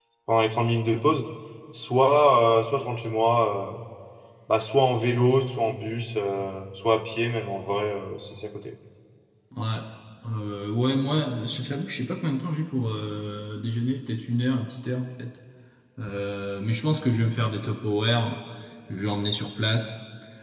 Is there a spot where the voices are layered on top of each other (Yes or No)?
No